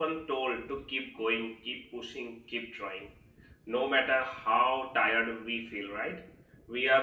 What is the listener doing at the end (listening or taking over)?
listening